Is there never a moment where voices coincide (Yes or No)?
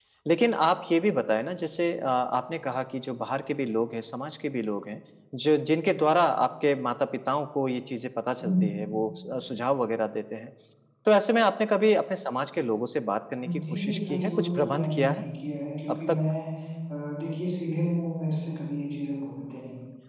No